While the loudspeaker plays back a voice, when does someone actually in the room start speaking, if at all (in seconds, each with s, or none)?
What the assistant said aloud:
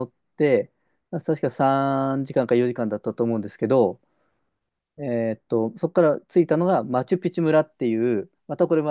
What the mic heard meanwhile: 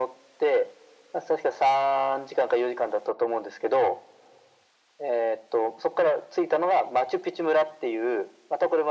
none